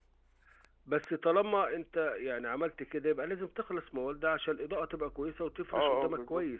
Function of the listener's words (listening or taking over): taking over